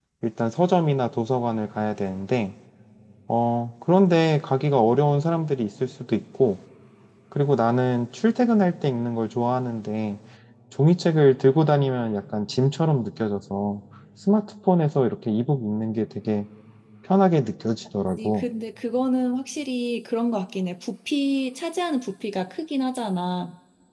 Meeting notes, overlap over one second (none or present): none